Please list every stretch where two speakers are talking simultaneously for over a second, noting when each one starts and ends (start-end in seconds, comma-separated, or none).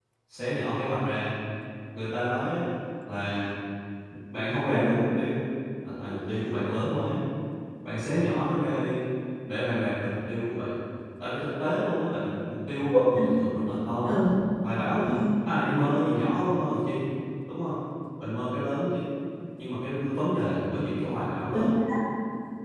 none